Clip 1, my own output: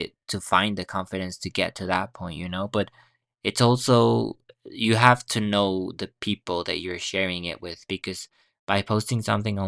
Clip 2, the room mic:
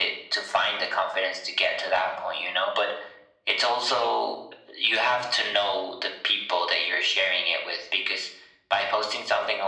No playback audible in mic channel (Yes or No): No